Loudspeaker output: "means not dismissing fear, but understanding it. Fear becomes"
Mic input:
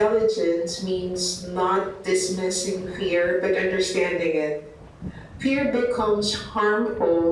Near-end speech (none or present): none